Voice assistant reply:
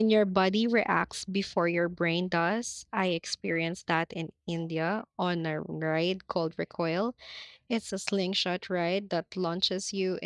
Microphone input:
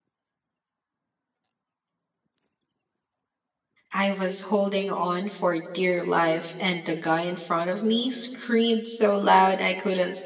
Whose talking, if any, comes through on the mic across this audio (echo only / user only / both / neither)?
user only